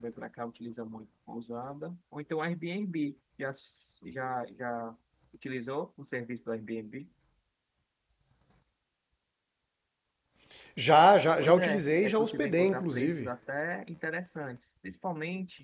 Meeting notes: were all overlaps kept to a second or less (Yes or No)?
No